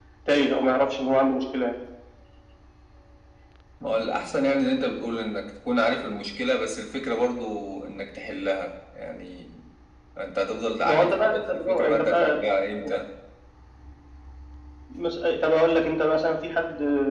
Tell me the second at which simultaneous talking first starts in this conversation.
11 s

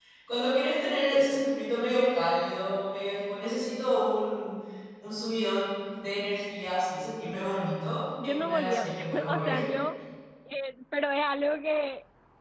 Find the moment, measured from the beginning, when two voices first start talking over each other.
8 s

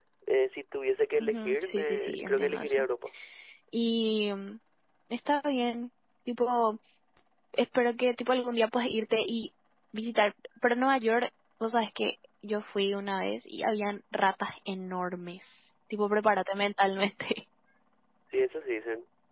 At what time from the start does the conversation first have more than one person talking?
1 s

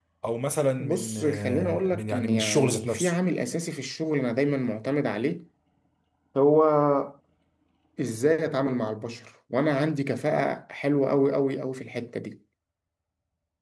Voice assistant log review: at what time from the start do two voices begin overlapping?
1 s

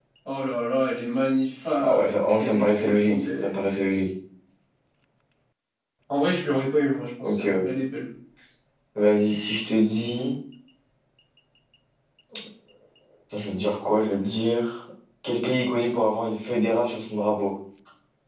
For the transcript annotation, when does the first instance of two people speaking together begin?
2 s

